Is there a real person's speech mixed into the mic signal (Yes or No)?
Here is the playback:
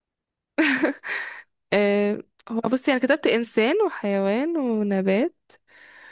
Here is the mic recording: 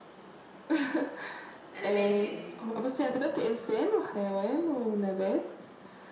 Yes